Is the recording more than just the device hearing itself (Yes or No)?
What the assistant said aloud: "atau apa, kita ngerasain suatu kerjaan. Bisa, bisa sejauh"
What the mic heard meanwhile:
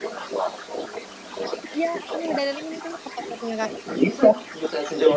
Yes